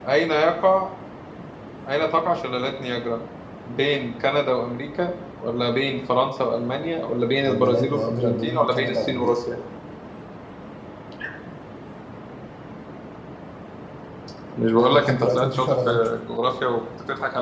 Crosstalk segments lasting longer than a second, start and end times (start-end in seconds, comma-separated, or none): 7.5-9.4, 14.8-16.1